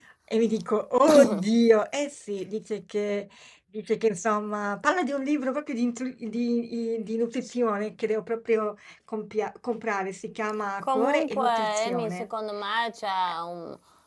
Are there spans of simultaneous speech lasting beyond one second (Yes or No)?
Yes